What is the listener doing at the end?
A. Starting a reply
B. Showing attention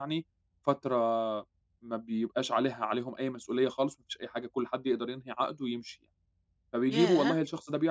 B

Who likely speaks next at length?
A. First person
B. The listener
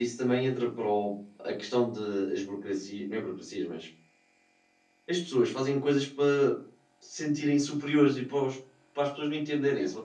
B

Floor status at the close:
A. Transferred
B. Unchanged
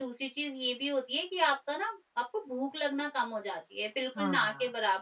B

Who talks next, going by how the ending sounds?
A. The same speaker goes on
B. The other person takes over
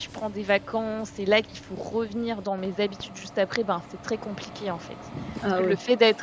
A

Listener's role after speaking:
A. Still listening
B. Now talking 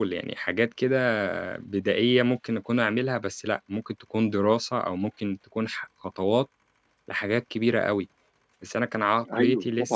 B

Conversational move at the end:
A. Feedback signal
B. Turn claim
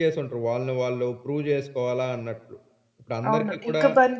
B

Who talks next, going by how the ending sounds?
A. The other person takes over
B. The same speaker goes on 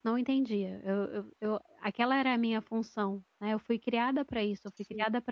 B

